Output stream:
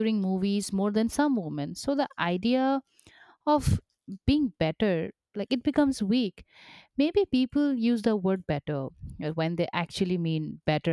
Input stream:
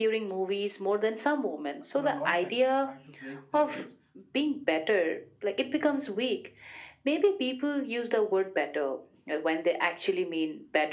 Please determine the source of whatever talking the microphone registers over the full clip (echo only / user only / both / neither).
both